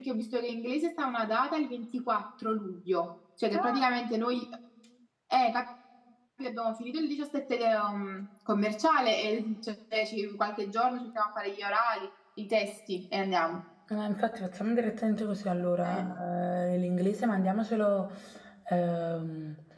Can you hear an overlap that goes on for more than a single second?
No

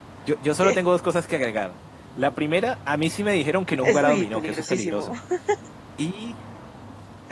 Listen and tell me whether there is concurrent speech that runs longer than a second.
Yes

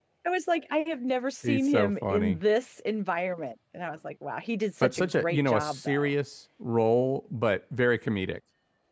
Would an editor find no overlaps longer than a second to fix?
No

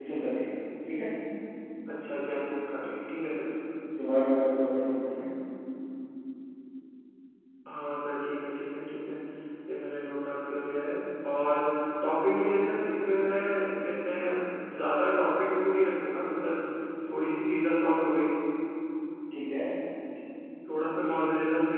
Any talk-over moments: No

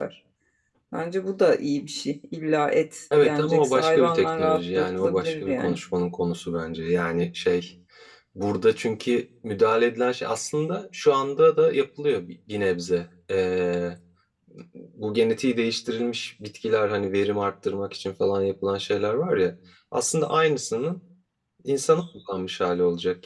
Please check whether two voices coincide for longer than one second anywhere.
Yes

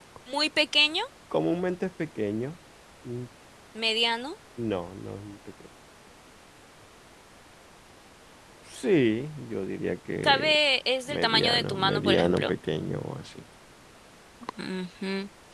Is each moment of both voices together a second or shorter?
No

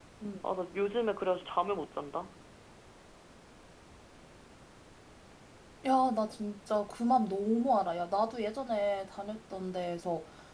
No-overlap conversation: Yes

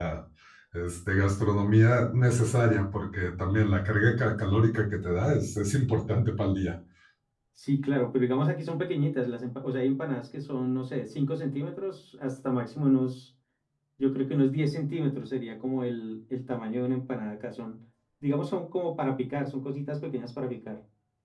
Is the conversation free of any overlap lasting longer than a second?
Yes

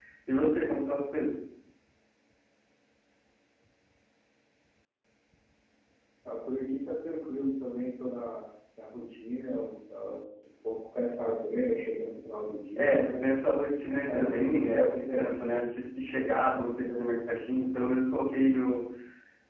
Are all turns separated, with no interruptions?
No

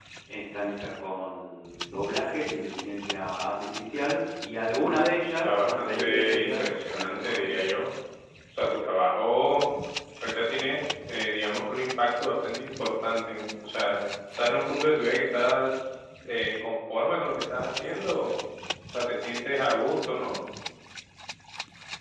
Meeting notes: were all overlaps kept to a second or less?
No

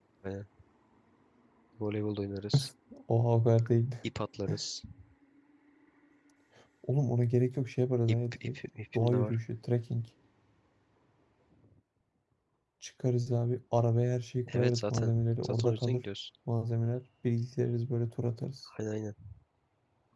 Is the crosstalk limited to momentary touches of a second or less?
No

